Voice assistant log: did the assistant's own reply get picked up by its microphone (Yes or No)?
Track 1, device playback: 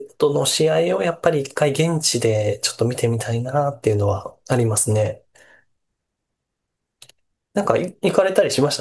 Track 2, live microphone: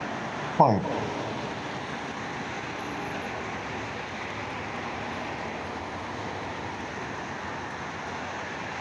No